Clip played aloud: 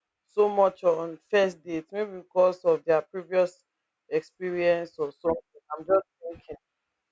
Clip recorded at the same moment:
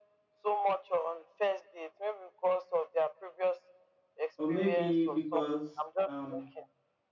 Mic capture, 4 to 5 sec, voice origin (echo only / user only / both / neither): both